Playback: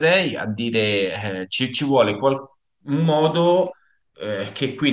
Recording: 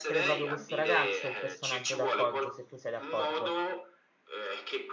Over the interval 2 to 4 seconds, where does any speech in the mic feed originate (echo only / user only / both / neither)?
both